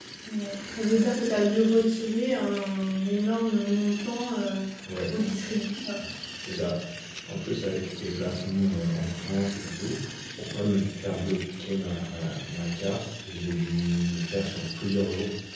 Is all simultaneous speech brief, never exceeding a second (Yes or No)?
Yes